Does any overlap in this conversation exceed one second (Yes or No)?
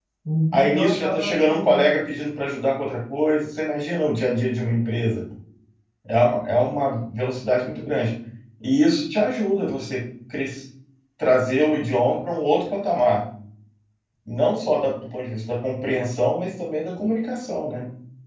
Yes